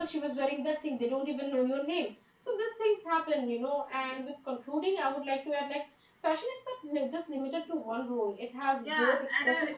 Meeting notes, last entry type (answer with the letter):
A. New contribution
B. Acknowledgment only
A